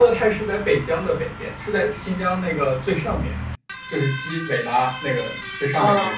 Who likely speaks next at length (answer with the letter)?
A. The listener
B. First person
B